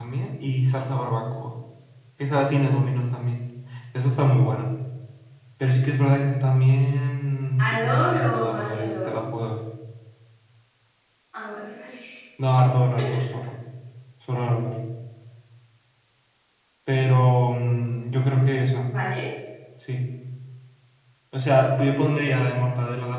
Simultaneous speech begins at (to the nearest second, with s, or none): 8 s